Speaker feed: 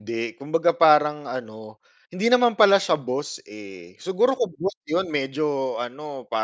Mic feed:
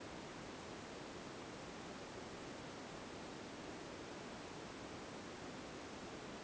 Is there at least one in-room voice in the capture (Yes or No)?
No